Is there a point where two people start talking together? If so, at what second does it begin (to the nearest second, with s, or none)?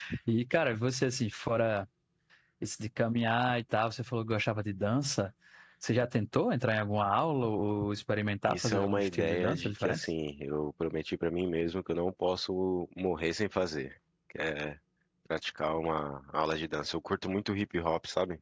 8 s